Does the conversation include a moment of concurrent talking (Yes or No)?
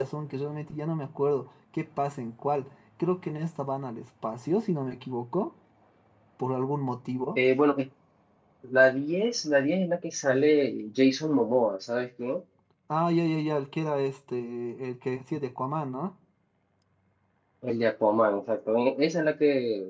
No